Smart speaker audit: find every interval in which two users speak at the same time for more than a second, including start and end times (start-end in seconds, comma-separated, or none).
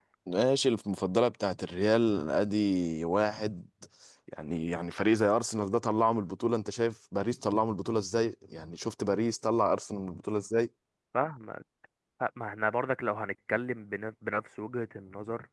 none